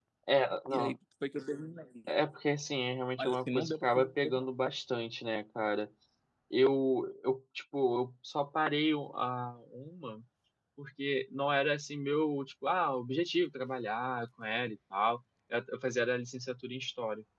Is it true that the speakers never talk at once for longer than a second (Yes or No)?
No